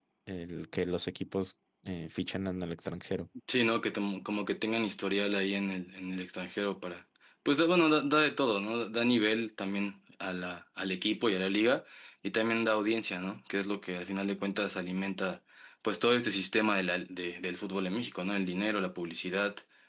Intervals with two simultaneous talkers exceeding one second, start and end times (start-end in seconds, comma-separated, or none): none